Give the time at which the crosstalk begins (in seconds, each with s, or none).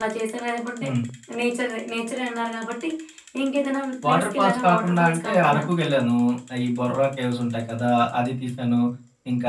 4.0 s